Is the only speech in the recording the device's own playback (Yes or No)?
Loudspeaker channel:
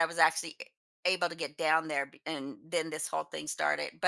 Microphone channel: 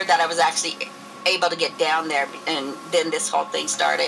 Yes